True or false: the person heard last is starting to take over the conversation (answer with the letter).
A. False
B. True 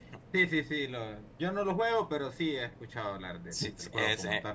B